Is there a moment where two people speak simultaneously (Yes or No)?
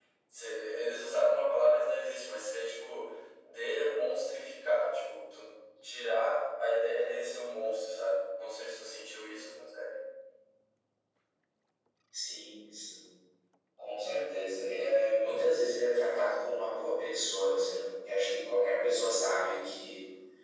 No